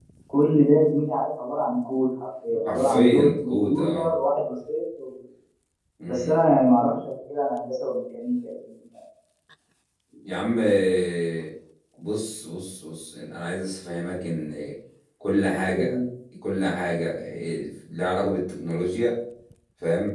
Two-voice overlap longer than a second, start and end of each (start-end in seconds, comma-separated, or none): 2.7-4.1